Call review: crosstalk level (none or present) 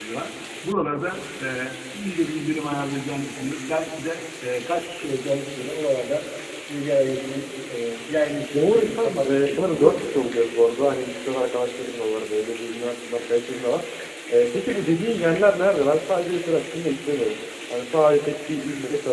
present